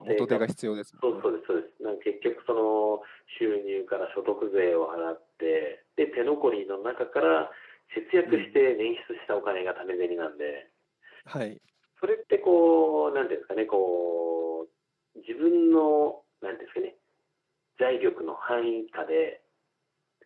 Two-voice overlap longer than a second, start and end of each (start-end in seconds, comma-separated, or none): none